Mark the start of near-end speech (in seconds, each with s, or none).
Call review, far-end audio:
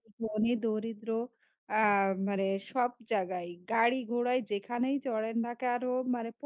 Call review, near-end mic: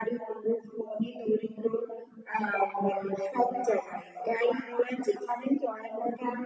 none